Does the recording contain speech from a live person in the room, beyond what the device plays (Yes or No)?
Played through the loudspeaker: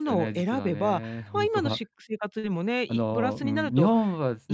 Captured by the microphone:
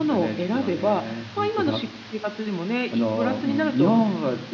No